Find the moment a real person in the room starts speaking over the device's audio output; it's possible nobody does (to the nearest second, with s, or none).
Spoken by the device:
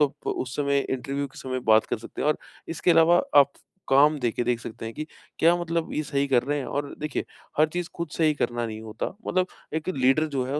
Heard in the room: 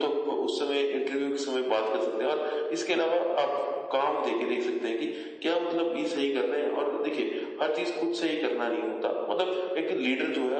none